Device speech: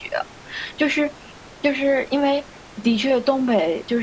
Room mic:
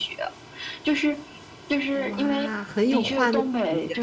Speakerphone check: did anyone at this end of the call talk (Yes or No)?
Yes